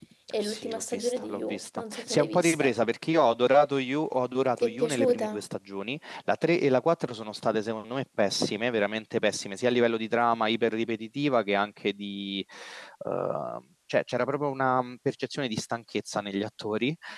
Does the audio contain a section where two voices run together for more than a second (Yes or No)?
Yes